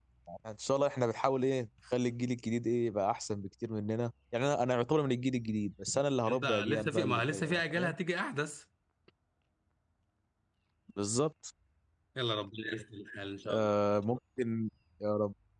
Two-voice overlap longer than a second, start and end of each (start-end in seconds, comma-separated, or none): 6.3-7.9